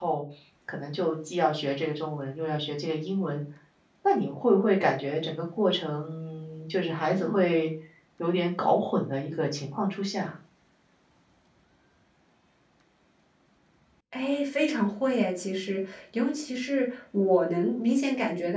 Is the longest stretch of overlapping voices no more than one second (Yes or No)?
Yes